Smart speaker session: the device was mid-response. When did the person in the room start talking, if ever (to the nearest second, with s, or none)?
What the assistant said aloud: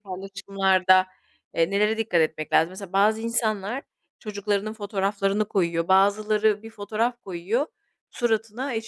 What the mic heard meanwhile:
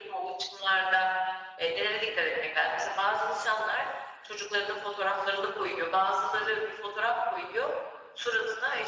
none